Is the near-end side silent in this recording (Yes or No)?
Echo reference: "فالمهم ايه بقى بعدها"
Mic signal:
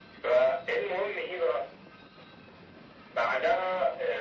Yes